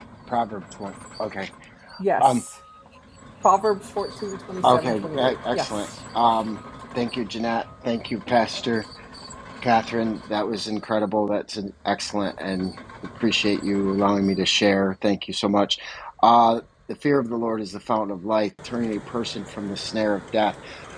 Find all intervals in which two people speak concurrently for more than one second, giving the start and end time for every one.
4.6-5.9

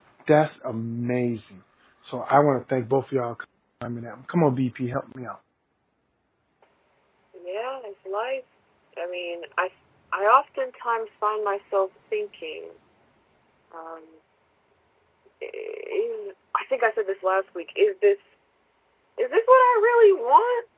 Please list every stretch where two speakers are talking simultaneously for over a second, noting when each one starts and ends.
none

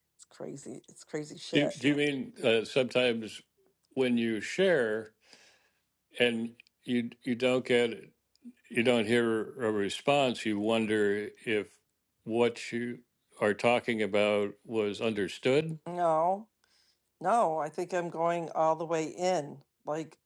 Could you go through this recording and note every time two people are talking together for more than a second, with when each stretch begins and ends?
none

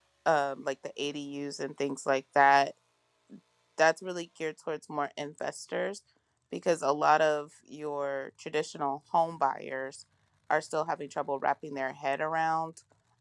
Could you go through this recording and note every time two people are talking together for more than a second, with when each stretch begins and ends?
none

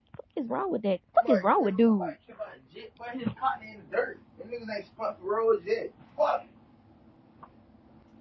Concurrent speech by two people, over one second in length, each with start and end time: none

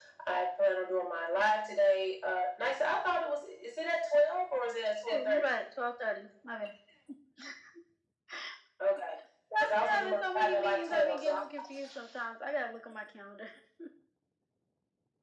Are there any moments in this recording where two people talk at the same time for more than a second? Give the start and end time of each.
9.6-11.4

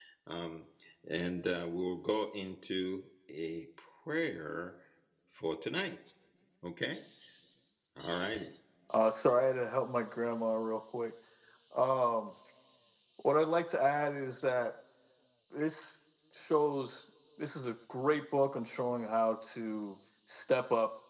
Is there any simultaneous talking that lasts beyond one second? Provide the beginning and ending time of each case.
none

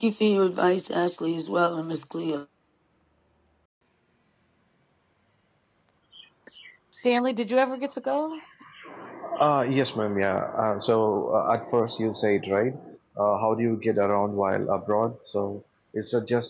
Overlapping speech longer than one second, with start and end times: none

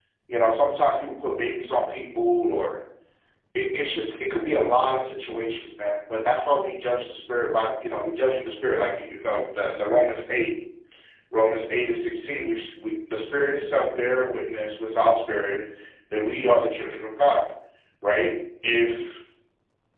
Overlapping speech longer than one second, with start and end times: none

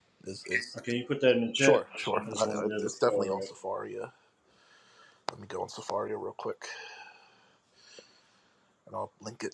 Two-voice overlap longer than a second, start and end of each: 2.2-3.5

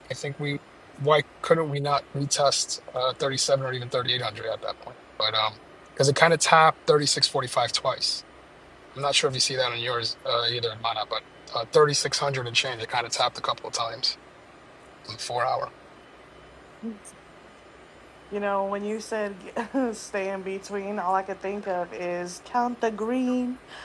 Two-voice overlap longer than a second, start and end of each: none

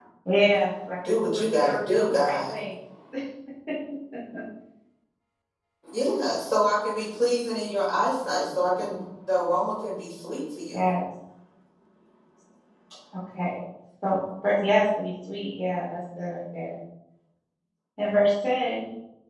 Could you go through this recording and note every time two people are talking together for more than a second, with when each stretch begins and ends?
1.0-2.5

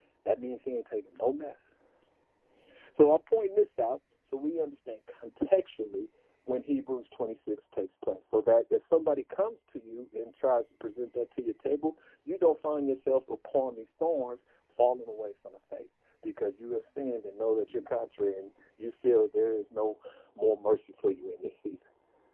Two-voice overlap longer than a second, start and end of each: none

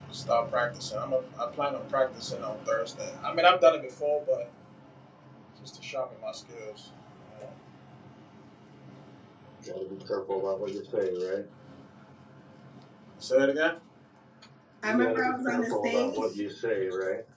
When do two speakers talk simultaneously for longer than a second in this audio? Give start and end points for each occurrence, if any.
14.8-16.2

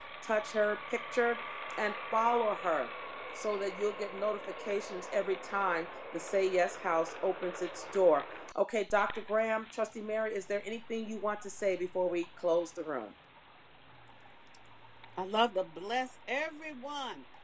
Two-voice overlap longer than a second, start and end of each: none

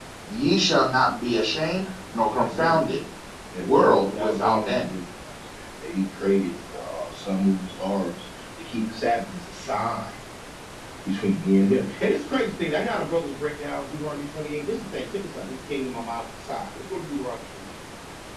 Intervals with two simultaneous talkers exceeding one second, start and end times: 3.6-4.9

